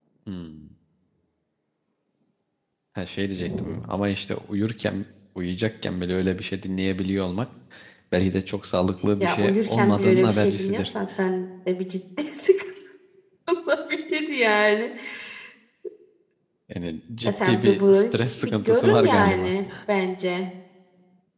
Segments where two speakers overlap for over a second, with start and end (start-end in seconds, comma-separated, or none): 9.2-10.9, 17.2-19.5